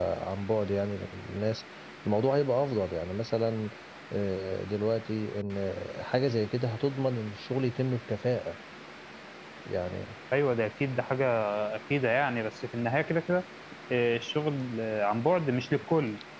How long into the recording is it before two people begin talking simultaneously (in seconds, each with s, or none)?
none